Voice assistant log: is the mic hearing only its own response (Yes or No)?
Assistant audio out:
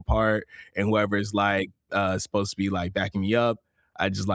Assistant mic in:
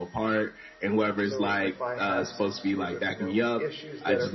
No